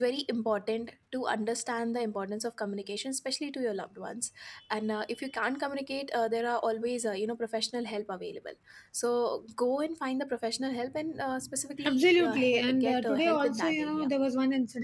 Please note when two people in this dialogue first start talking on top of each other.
11.8 s

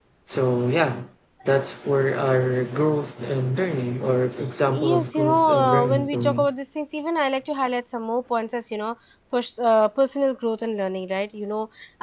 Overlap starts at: 4.7 s

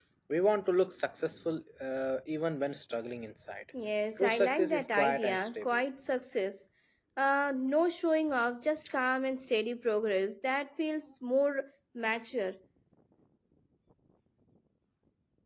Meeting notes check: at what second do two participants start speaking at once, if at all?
4.2 s

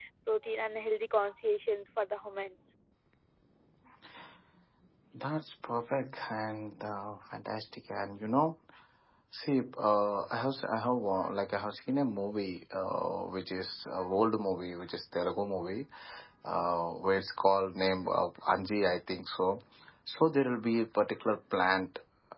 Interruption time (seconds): none

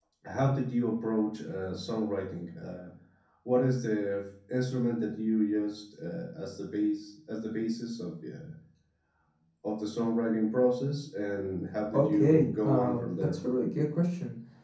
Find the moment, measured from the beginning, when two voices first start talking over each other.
11.8 s

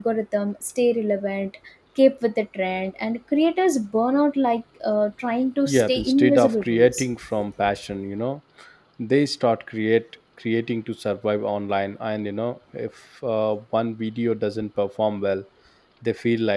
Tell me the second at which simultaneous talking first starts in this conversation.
5.7 s

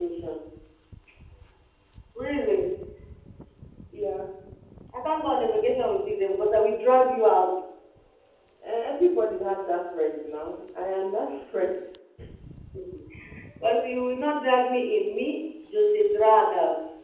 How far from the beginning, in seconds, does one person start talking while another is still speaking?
none

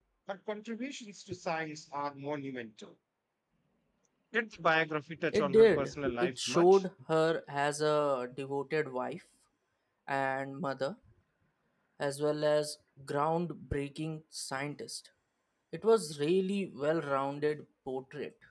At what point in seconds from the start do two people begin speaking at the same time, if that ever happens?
5.3 s

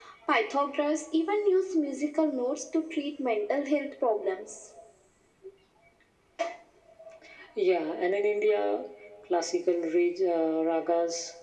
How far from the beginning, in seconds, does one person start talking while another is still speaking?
none

